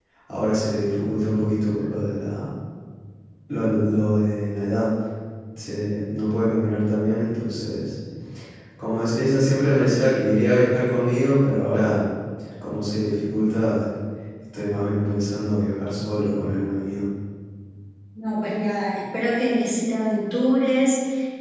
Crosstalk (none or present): none